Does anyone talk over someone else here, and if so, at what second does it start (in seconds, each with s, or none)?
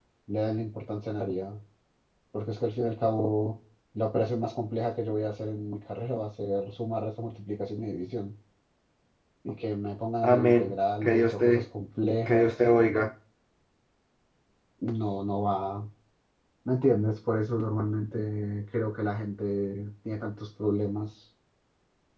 10.2 s